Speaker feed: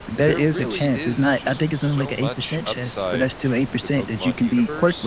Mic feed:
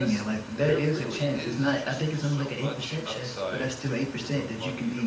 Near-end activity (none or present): none